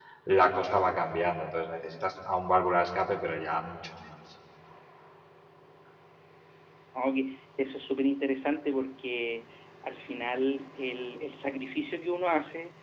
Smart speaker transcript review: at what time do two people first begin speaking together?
none

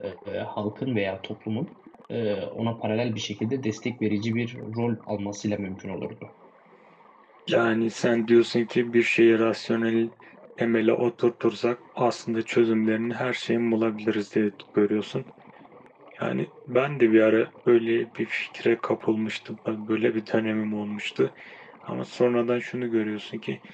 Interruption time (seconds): none

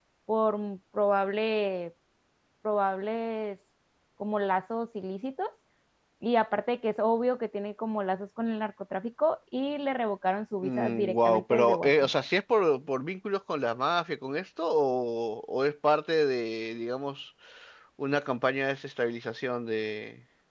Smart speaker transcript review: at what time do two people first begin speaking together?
10.6 s

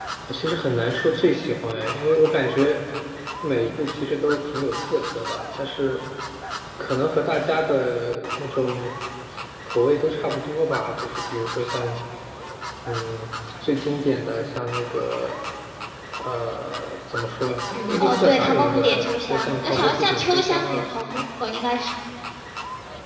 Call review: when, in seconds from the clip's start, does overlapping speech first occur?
18.0 s

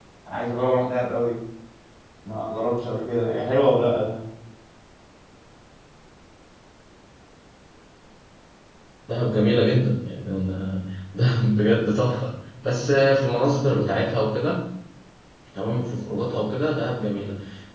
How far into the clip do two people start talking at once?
none

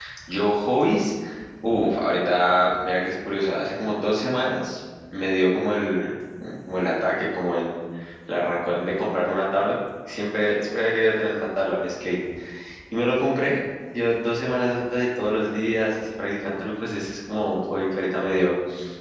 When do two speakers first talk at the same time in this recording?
none

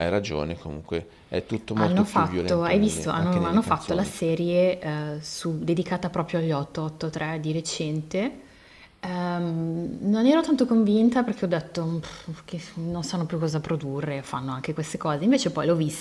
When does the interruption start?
1.8 s

